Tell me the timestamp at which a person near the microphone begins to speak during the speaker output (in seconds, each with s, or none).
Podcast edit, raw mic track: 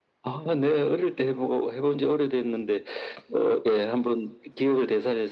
none